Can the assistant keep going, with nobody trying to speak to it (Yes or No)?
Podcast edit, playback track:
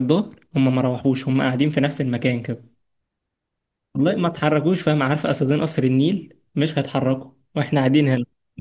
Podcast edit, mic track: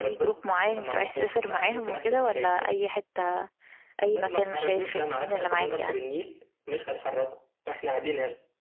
No